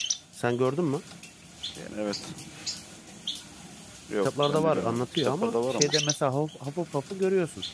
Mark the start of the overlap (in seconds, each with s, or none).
4.2 s